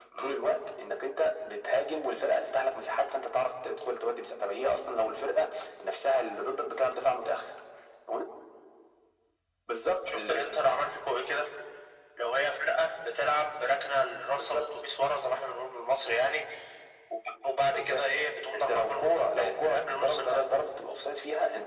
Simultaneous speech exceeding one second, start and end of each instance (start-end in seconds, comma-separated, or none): 18.5-20.4